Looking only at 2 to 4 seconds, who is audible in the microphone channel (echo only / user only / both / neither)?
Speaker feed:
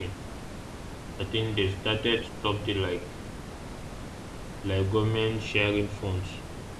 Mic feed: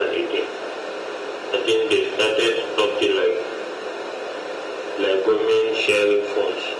echo only